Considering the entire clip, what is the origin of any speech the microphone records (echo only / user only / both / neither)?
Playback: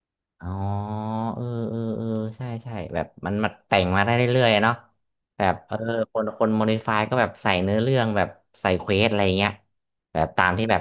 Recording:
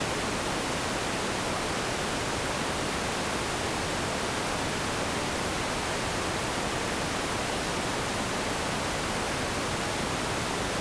neither